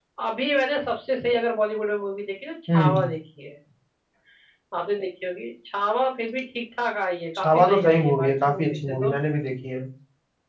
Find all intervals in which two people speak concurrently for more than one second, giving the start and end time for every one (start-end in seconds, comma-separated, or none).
7.4-9.2